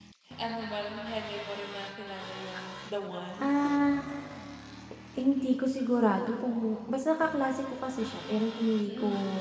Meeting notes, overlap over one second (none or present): none